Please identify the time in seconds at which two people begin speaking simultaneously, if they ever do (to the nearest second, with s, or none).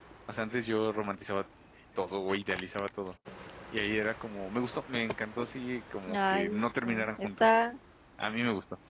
6 s